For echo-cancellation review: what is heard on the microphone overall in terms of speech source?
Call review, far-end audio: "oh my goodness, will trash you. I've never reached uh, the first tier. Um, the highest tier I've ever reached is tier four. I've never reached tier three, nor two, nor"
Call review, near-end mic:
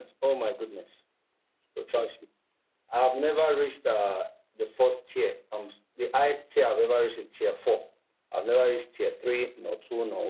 echo only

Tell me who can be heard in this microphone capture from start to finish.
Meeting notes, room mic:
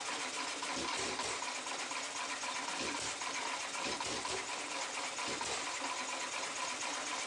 neither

